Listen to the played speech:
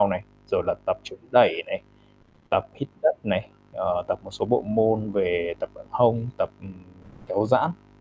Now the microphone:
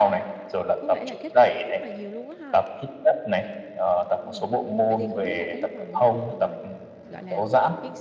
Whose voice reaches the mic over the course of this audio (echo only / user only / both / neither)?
both